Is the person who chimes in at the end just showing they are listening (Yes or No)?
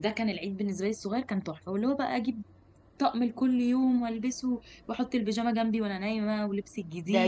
No